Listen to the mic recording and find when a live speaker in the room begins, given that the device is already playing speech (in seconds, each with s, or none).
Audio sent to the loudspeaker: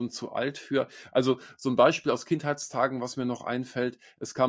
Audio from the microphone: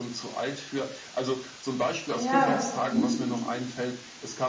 2.1 s